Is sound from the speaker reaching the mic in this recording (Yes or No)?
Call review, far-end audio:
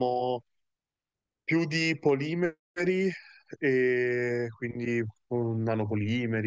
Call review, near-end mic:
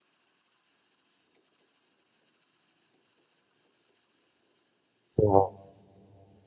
No